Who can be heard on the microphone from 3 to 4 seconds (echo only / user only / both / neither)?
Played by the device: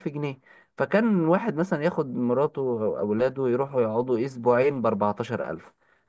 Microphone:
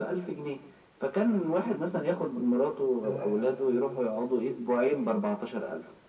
both